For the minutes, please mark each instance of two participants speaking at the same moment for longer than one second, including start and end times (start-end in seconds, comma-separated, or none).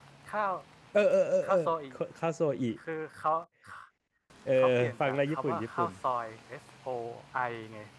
4.5-5.9